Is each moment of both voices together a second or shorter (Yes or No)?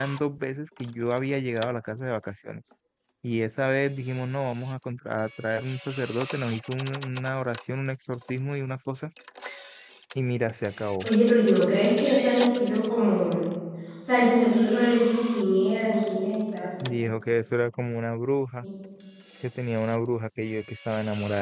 Yes